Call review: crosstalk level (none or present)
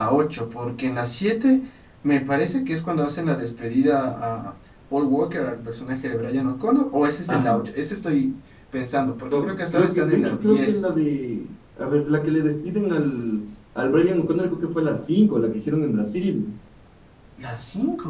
present